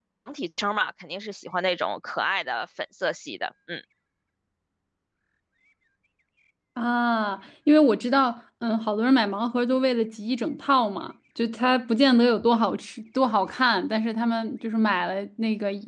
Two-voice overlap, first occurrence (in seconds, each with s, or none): none